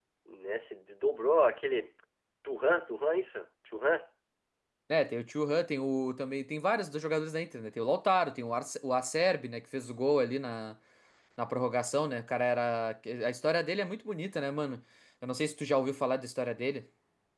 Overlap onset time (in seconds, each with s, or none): none